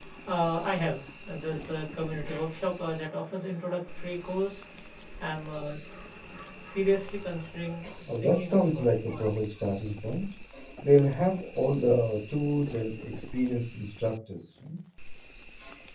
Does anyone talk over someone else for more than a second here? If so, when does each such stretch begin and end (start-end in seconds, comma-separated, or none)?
8.1-9.3